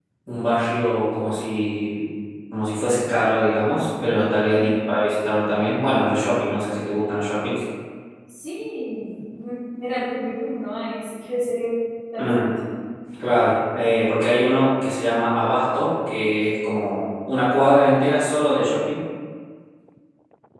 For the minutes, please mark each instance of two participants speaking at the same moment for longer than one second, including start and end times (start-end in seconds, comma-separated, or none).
none